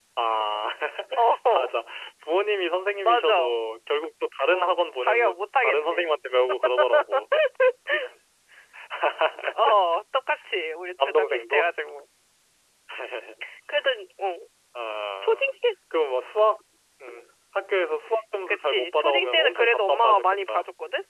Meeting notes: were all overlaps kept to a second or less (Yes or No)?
No